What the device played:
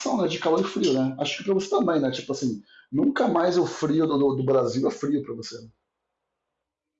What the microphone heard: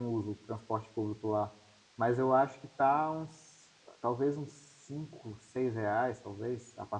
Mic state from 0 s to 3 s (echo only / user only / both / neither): user only